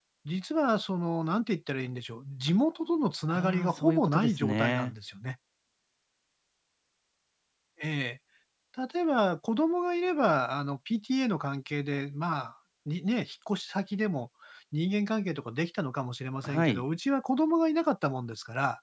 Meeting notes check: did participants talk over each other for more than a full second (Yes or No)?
Yes